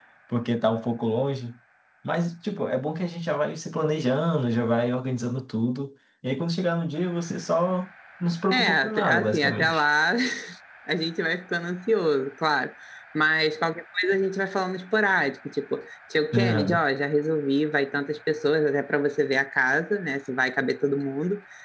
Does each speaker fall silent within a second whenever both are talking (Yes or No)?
No